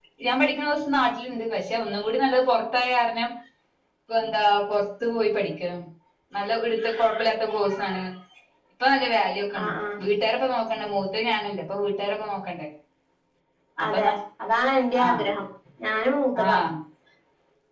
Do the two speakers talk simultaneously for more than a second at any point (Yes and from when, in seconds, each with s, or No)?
No